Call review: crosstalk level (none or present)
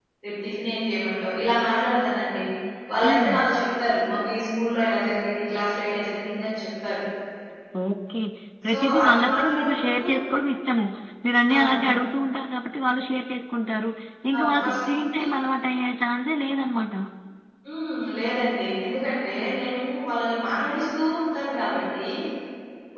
present